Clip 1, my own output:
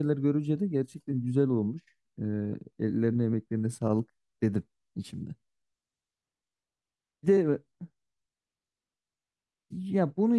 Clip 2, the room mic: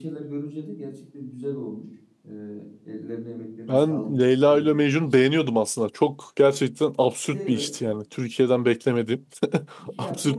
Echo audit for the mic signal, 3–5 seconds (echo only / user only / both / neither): both